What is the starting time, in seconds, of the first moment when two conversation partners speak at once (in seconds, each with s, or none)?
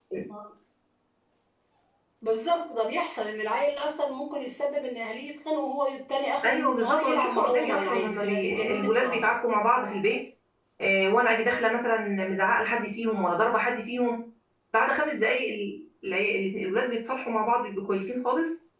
6.4 s